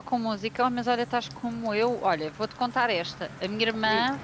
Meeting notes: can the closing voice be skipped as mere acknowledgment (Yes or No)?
Yes